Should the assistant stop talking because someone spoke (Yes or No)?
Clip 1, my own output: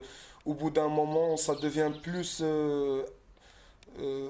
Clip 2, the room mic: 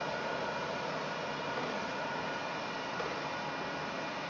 No